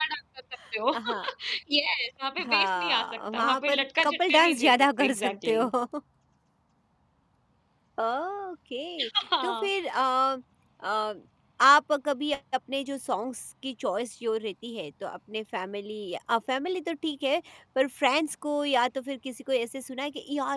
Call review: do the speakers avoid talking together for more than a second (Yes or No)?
No